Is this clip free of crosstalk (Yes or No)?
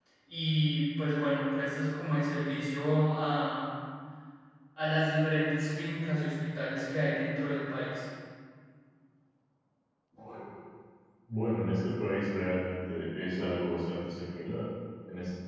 Yes